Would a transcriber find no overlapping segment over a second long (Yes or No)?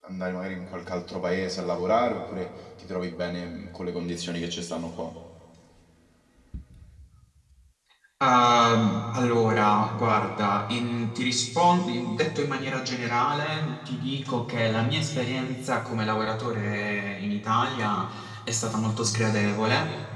Yes